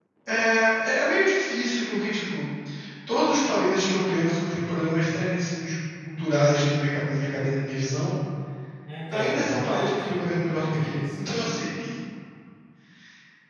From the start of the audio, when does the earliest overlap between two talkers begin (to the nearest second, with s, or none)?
9 s